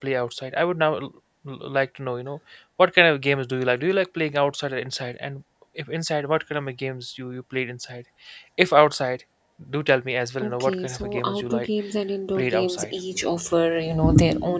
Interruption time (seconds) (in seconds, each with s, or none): 10.4 s